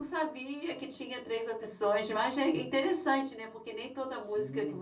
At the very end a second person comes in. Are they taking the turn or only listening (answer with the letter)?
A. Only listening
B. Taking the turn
A